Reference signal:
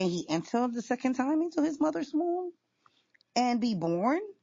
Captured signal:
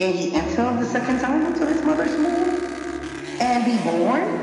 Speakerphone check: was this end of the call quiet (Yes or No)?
Yes